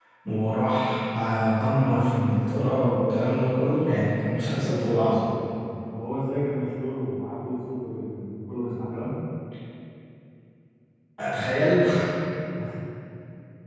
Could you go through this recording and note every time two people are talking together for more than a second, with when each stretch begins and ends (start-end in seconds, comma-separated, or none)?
none